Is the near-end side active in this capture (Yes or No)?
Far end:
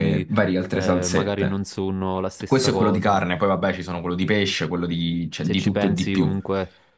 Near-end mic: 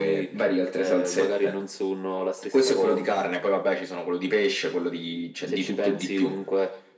No